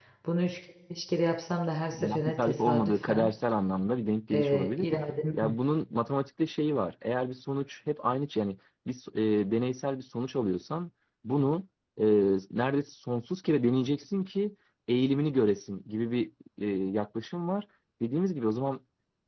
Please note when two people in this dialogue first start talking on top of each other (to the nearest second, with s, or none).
2 s